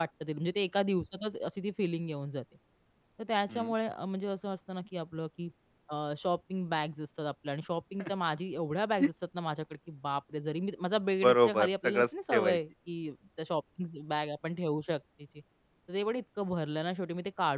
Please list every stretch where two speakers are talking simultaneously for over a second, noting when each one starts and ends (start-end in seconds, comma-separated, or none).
11.2-12.6